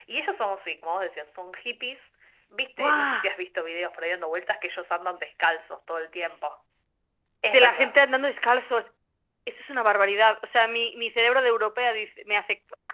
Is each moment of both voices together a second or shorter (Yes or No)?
Yes